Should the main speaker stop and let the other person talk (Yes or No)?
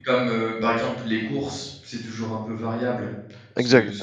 No